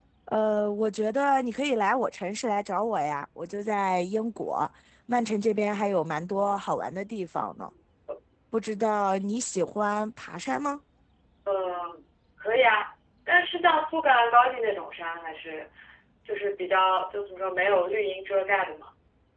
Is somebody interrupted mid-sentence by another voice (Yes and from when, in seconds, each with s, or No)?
No